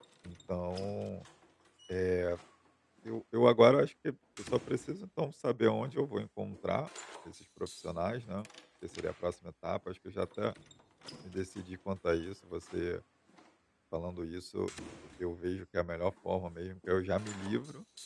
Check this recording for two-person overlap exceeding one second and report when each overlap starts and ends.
none

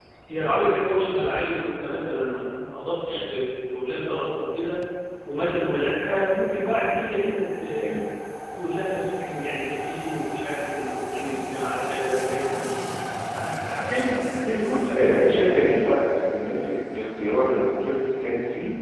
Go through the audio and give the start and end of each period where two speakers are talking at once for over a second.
14.4-16.0

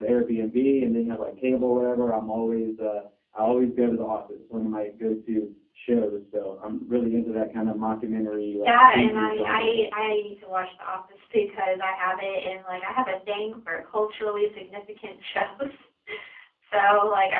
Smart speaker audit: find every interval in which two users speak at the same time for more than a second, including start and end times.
8.6-9.9

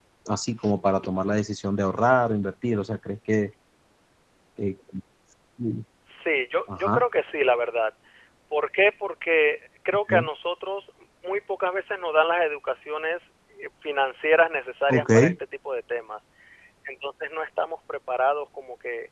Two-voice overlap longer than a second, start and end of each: none

